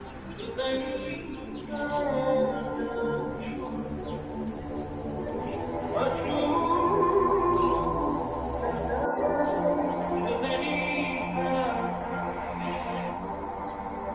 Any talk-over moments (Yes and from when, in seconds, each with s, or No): No